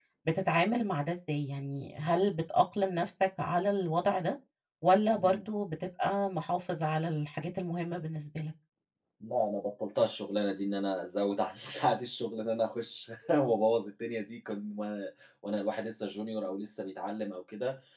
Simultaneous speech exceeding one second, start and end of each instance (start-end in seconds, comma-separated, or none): none